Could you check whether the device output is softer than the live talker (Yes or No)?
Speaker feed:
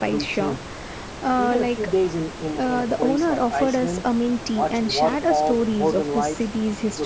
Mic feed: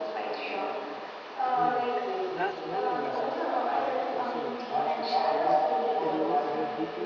No